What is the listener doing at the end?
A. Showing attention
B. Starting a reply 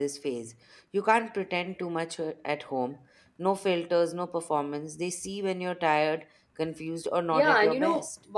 B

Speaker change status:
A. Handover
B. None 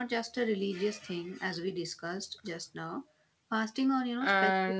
A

